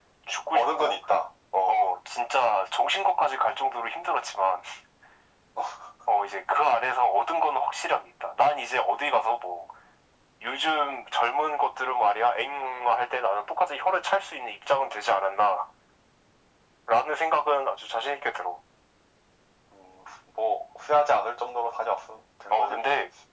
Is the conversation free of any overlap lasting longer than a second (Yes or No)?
Yes